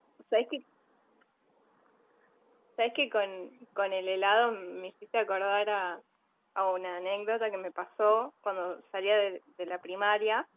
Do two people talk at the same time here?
No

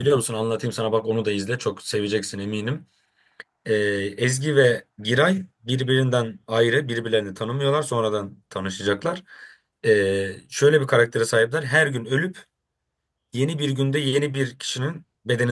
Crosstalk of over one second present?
No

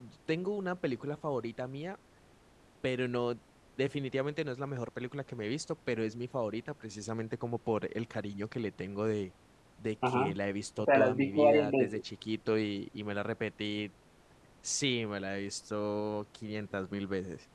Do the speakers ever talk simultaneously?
Yes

